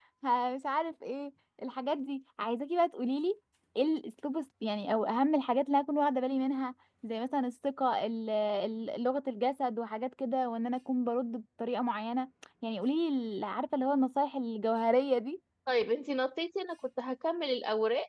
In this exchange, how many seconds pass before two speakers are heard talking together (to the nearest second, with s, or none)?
none